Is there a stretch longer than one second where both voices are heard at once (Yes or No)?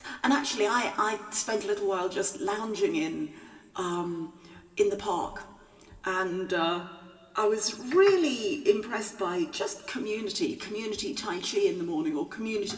No